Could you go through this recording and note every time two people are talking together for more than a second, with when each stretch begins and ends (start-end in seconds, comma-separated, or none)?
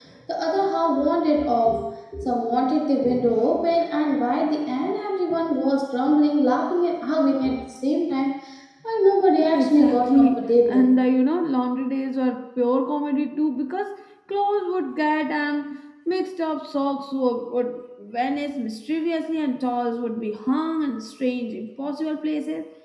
9.5-10.9